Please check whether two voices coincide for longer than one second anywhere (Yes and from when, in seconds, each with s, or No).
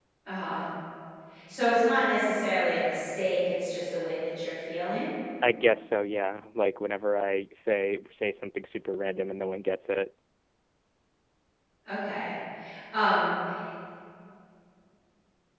No